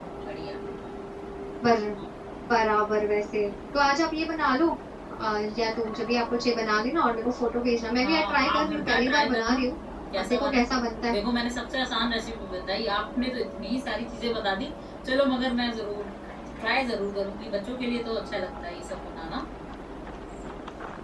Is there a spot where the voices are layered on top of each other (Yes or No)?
Yes